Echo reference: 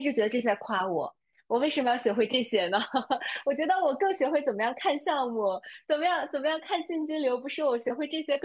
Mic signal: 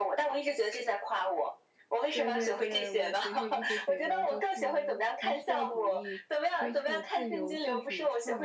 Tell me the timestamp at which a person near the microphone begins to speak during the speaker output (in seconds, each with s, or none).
2.1 s